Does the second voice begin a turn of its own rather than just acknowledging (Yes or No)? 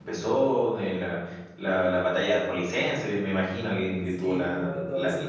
Yes